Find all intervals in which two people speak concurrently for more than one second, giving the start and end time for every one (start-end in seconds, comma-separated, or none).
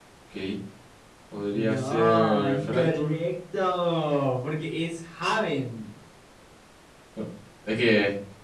1.5-3.1